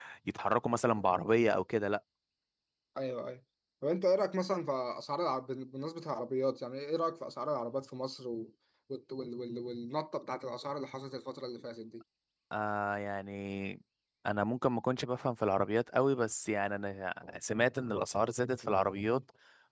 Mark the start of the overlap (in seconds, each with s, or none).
none